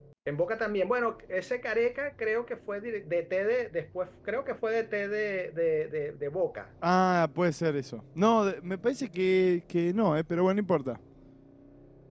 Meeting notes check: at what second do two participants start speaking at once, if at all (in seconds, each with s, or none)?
none